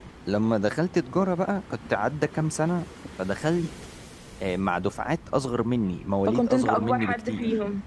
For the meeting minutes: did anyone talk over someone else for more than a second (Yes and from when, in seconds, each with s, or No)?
Yes, from 6.3 s